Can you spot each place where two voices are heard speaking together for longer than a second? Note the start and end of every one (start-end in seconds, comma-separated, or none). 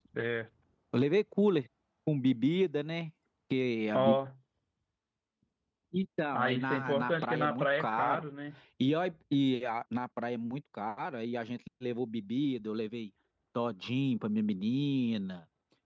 6.3-8.2